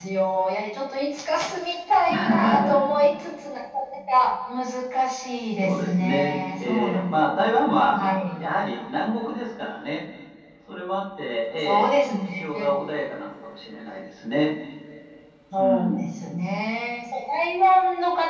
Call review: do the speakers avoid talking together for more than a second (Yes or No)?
No